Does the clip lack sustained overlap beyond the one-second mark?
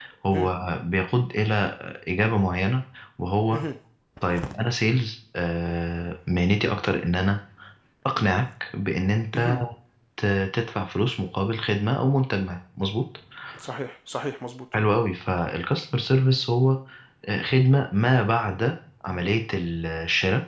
Yes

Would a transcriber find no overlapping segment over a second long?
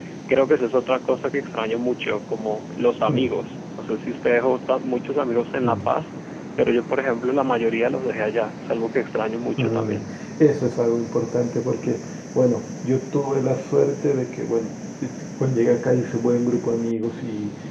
Yes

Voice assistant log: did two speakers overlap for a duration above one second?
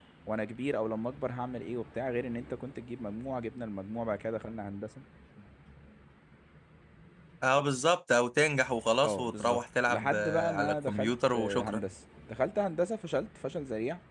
Yes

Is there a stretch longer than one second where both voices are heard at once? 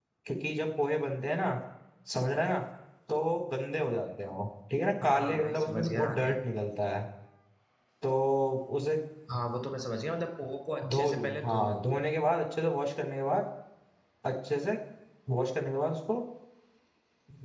Yes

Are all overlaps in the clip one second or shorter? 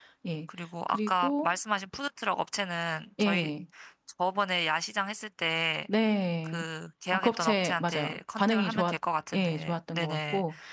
No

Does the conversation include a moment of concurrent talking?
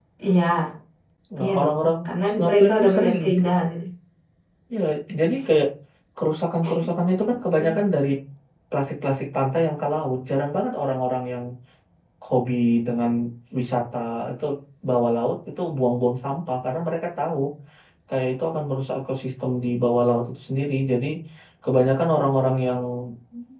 Yes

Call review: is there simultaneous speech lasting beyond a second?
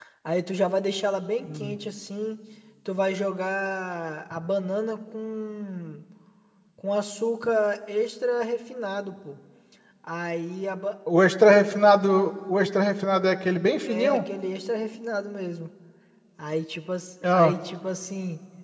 No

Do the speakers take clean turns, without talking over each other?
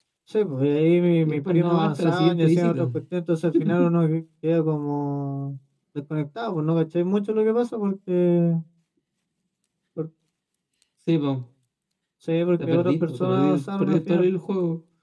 No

